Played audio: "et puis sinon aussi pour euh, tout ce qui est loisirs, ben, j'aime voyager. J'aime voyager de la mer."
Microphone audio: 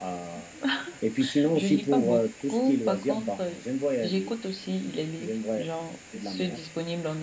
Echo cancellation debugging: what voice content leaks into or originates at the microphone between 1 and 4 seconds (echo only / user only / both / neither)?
both